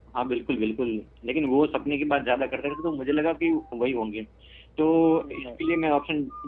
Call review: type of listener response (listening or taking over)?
listening